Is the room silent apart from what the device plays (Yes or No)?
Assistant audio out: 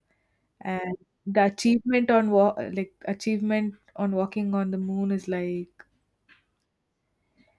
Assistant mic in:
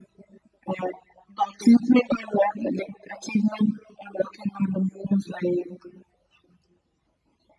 Yes